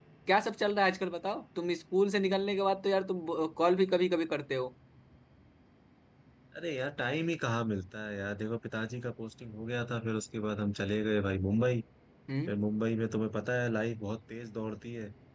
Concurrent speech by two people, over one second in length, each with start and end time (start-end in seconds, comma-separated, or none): none